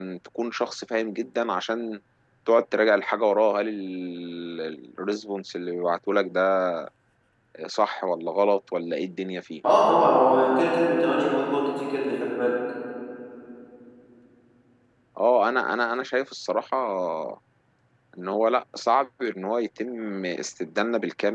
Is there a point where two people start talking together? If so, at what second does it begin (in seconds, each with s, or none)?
none